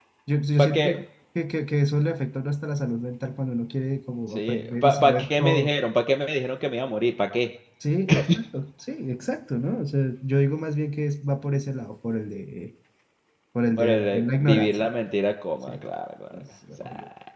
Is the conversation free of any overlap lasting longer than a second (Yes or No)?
No